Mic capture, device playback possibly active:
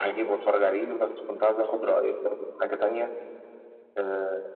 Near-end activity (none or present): none